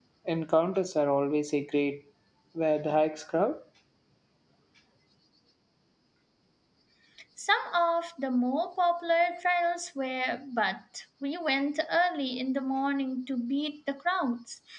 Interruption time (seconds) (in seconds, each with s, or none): none